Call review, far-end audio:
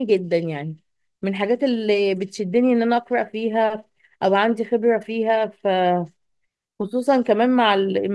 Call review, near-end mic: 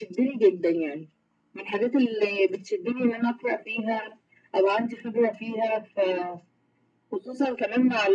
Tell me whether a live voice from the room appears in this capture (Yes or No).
No